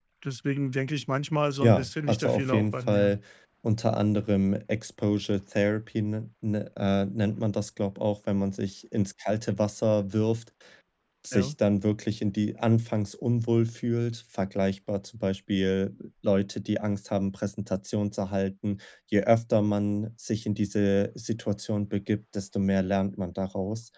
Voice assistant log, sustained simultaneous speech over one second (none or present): present